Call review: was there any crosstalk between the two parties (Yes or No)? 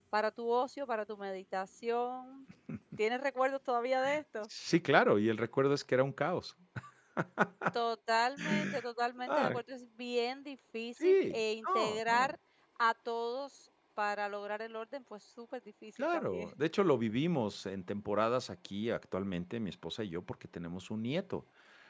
Yes